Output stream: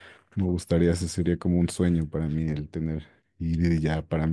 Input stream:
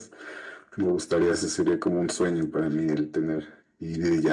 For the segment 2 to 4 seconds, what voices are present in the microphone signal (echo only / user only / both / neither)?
echo only